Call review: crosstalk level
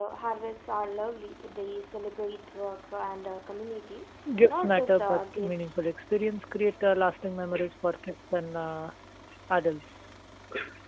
present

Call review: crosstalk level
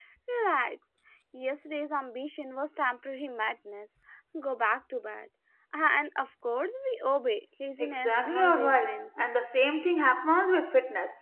present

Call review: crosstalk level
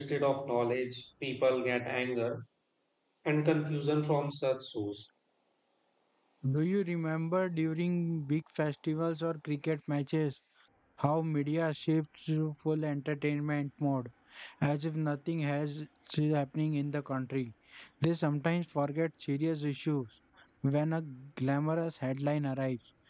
none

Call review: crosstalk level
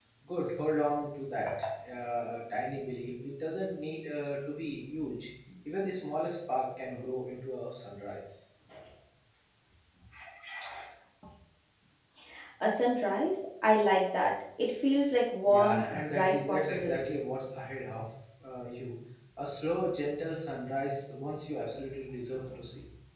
present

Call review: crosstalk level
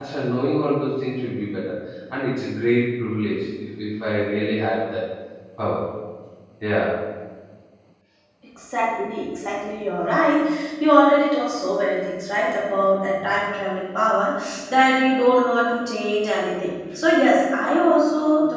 none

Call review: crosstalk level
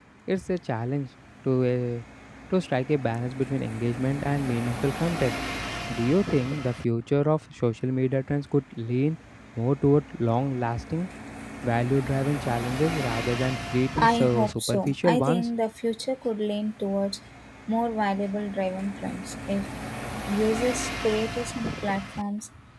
present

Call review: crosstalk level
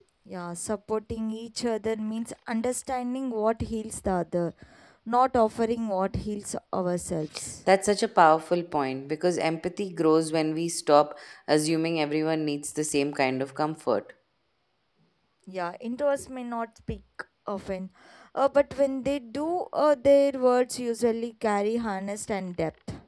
none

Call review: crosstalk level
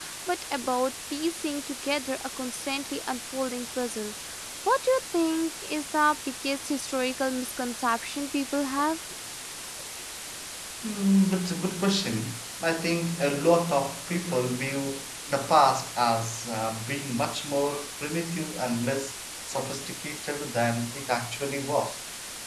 none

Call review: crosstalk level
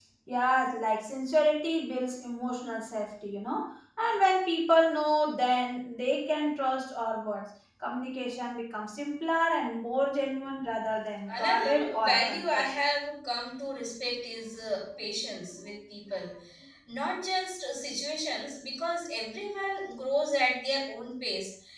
present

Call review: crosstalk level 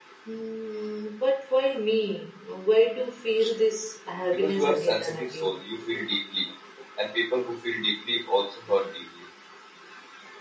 present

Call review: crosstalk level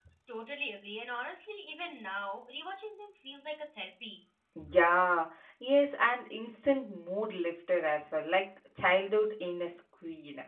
none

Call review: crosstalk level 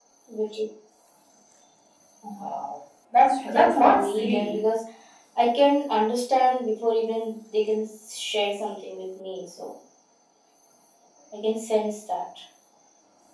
present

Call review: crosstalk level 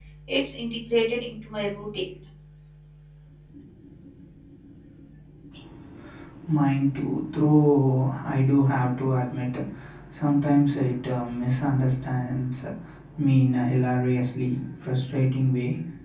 none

